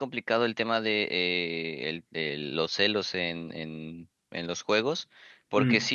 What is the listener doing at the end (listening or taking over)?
listening